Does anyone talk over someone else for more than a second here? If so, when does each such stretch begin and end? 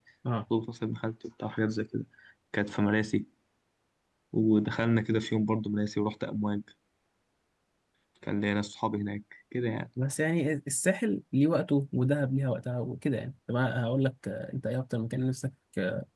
none

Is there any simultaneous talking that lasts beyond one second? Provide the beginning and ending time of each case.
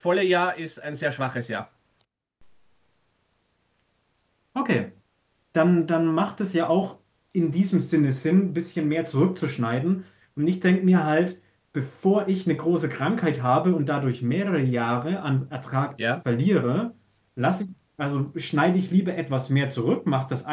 none

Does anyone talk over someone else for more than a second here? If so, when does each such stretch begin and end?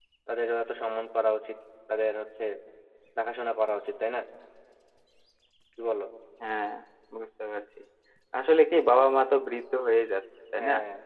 none

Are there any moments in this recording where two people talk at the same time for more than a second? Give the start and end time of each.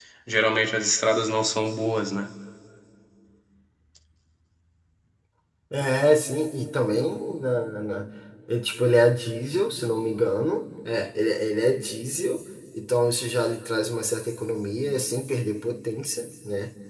none

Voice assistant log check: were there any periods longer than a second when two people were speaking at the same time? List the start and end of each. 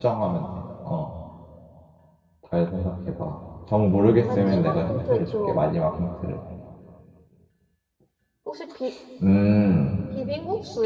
4.3-5.6

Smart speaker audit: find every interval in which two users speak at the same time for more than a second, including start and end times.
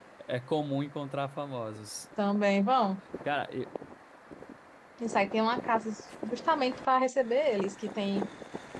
none

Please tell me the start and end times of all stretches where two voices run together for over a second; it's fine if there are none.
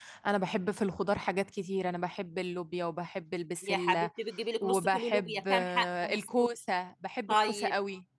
4.6-6.3

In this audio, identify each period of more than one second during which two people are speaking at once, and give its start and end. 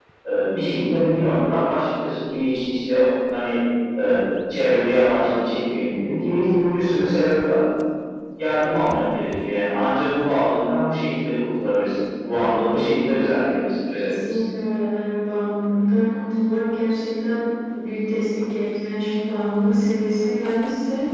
none

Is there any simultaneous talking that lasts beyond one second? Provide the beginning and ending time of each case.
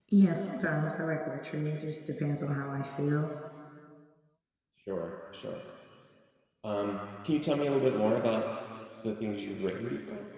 none

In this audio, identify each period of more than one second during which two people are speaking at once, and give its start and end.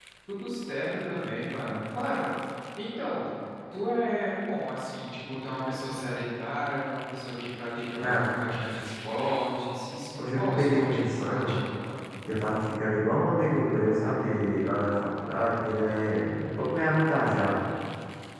10.2-11.6

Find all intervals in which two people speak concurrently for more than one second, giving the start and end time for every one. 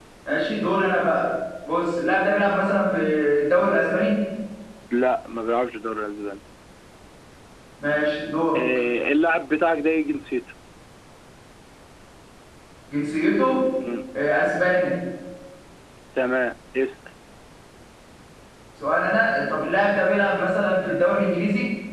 none

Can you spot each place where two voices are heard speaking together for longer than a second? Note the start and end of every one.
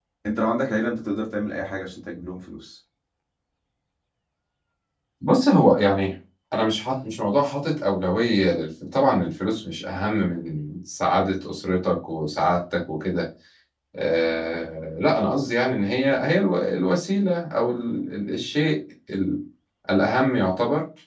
none

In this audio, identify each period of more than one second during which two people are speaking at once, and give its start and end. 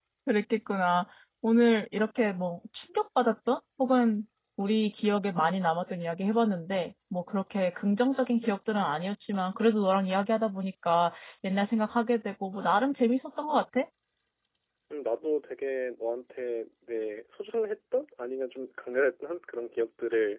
none

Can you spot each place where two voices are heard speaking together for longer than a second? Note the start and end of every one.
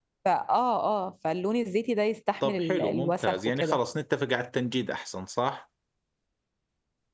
2.4-3.8

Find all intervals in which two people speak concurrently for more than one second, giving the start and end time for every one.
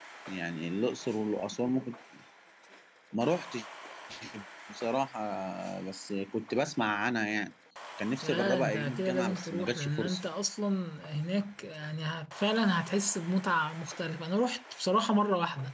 8.2-10.2

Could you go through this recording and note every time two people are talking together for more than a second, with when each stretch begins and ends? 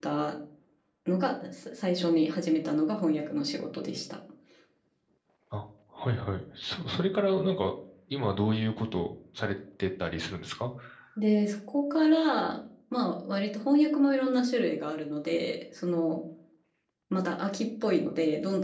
none

